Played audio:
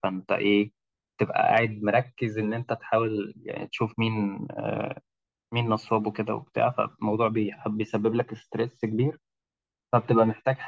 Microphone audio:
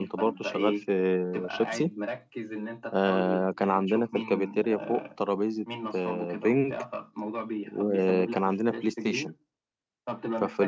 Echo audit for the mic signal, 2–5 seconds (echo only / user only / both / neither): both